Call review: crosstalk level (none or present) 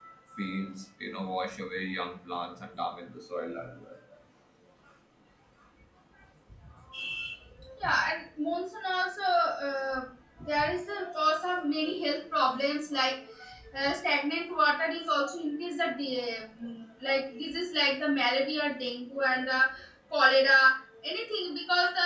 none